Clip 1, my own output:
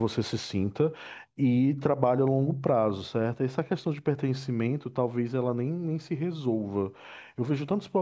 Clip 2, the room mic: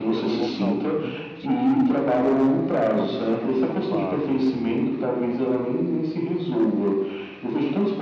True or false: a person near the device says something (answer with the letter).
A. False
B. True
B